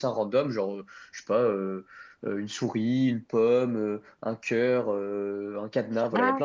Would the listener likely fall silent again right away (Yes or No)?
No